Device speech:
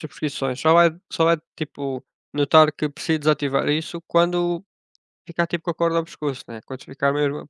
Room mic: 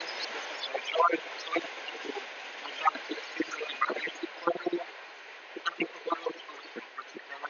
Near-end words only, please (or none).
none